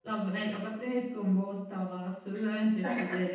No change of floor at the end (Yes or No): Yes